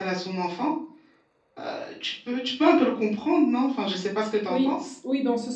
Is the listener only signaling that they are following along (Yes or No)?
No